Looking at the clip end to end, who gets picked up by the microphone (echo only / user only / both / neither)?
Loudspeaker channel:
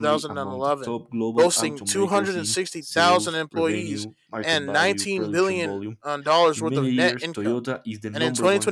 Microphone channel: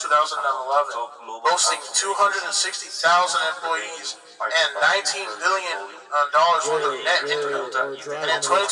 both